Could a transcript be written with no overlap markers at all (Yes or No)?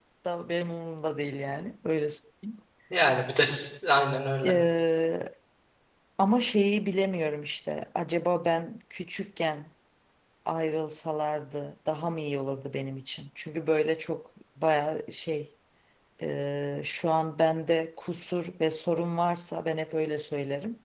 Yes